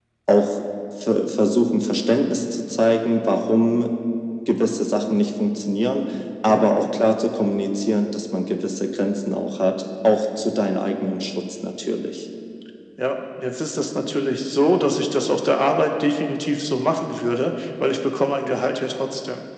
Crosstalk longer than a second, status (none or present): none